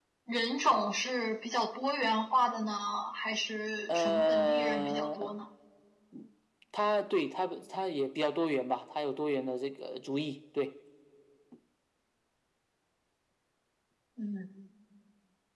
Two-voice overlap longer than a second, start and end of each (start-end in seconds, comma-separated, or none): 3.9-5.3